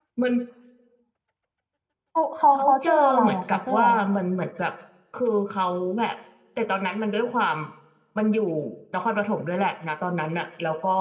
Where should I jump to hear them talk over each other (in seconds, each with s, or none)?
2.5 s